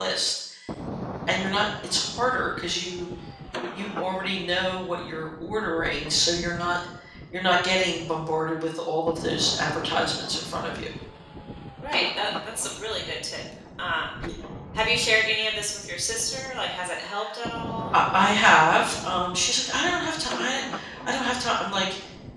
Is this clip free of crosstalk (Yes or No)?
Yes